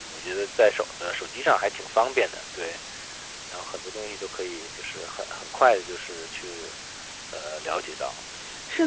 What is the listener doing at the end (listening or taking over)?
taking over